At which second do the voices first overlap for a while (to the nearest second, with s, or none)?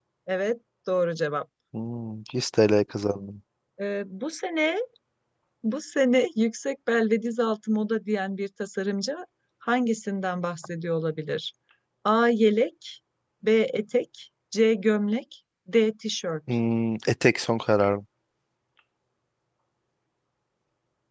none